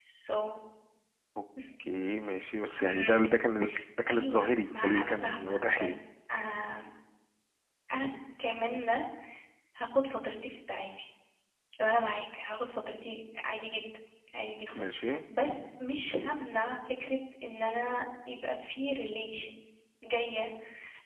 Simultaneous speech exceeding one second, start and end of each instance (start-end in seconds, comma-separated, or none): 4.1-6.0